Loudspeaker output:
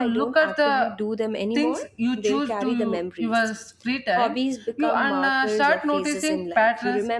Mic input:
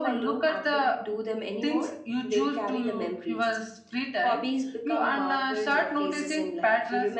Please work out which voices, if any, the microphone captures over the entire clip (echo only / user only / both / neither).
echo only